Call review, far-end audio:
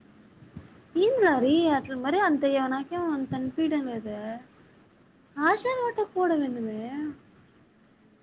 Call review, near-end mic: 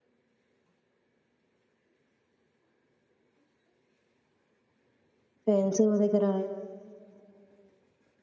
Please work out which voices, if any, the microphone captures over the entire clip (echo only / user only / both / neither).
user only